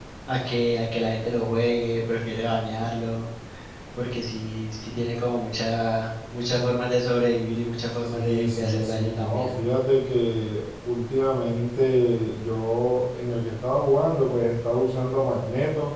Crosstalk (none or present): present